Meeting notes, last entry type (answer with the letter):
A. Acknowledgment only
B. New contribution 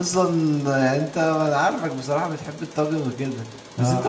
A